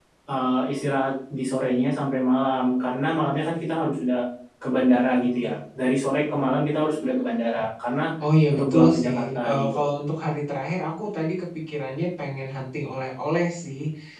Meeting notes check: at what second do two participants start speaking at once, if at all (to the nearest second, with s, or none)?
9 s